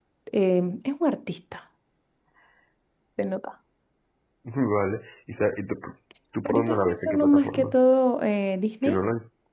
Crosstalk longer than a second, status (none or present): present